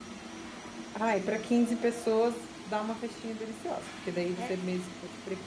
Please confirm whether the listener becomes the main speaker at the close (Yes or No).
No